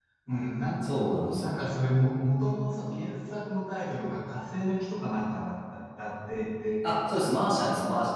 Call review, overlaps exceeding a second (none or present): none